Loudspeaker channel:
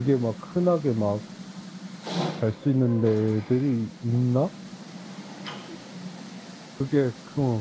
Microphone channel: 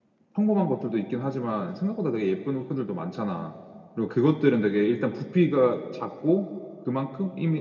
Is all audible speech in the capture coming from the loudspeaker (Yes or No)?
No